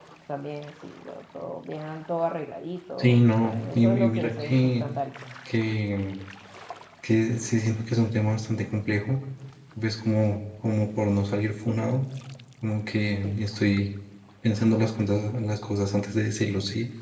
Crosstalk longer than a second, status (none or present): present